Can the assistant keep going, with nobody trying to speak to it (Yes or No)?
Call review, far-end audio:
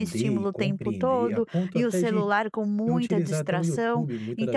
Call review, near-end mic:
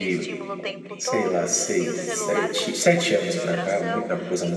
No